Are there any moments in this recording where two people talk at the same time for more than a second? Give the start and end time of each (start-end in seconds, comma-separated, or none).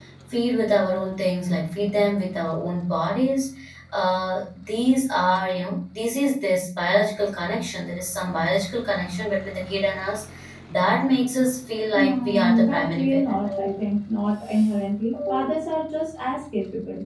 11.9-13.4